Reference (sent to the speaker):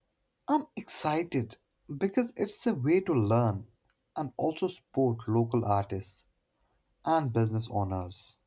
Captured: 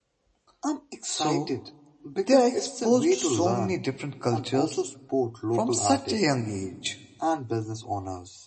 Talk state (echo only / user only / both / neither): both